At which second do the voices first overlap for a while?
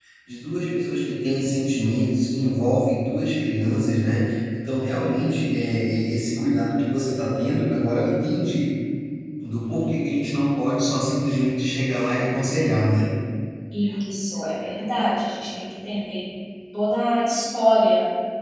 none

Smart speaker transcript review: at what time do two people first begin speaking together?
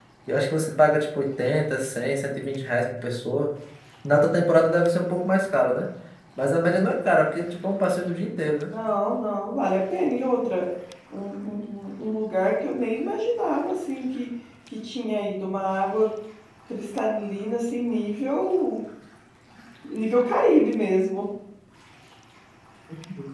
none

